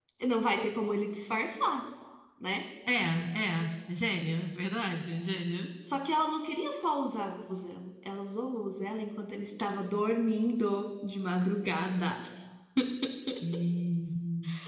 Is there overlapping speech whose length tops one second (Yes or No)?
No